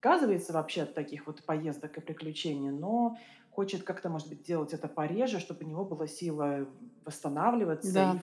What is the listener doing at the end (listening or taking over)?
listening